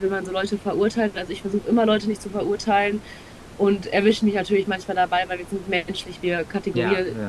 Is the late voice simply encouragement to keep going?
Yes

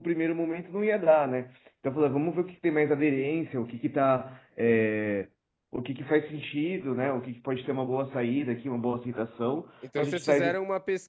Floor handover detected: Yes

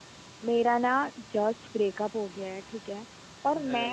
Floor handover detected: No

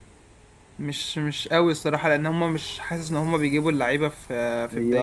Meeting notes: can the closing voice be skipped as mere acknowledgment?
No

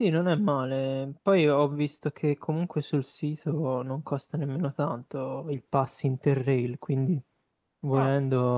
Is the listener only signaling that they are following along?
Yes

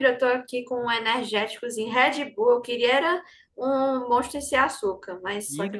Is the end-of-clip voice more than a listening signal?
Yes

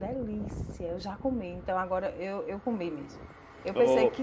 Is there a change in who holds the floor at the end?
No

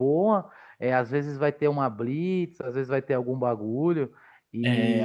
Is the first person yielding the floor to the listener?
Yes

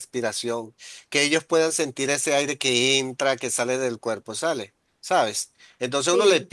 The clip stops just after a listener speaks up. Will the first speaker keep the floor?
Yes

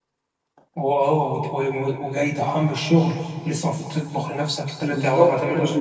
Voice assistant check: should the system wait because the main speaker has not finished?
No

